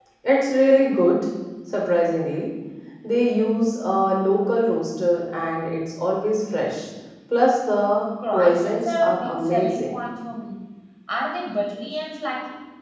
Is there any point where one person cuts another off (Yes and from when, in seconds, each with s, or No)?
Yes, from 8.2 s